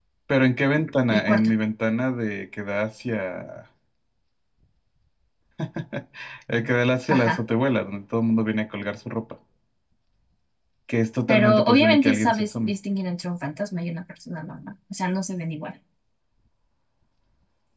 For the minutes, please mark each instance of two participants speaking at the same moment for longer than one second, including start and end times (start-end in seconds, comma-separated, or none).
11.3-12.7